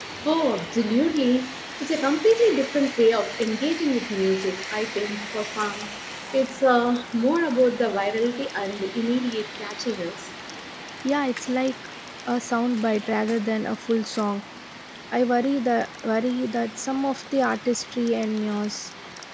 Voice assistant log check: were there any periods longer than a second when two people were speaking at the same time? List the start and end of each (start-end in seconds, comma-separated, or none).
none